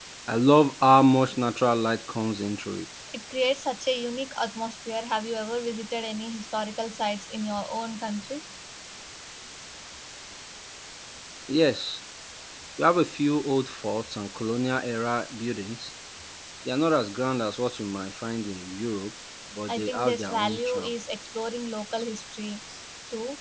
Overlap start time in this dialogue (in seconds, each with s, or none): 19.7 s